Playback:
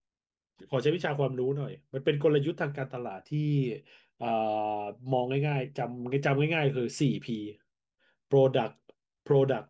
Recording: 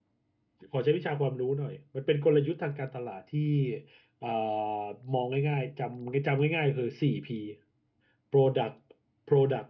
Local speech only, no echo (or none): none